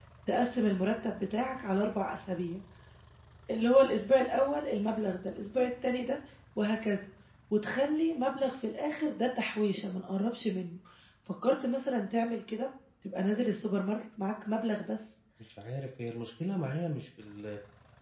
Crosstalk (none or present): none